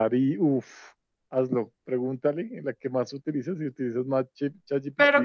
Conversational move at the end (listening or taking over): taking over